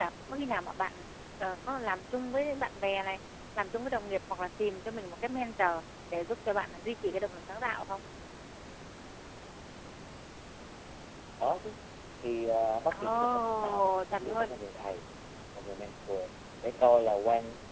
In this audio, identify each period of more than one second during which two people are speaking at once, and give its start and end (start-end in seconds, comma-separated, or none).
12.9-14.6